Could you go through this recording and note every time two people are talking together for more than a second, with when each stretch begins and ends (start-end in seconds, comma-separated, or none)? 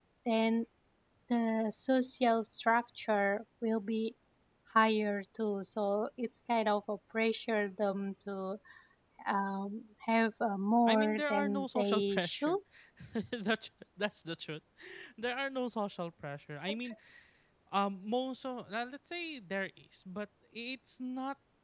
10.9-12.6